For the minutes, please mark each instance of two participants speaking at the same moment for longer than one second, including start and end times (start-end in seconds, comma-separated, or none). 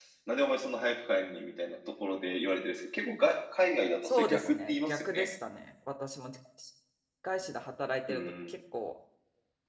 4.0-5.3